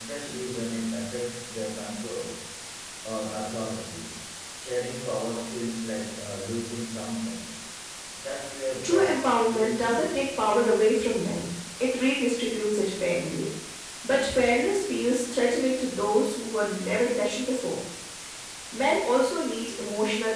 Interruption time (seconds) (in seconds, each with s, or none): 8.8 s